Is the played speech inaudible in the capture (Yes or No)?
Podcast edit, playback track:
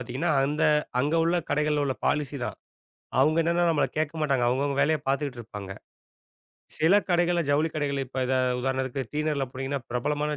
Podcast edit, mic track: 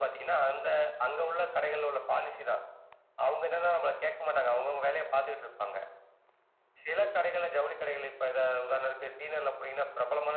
No